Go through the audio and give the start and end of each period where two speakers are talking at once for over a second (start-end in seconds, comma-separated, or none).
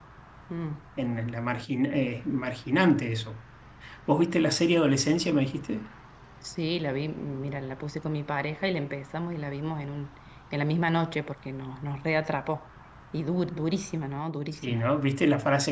none